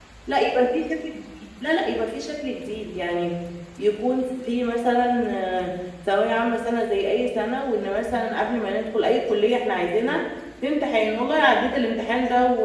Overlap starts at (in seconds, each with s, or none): none